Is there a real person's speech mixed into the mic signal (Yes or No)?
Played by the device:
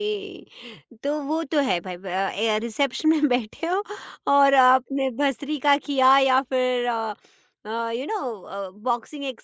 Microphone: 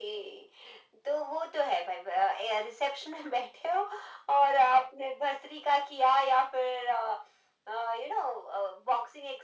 No